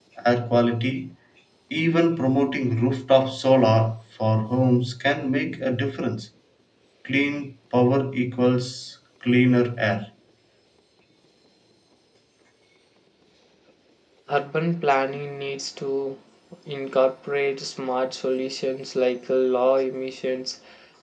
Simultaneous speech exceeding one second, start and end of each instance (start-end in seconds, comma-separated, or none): none